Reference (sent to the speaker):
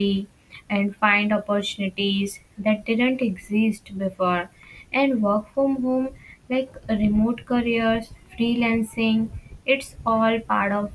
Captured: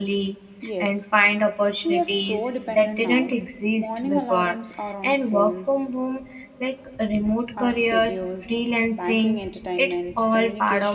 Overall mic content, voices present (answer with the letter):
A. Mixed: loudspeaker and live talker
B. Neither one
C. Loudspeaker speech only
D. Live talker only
A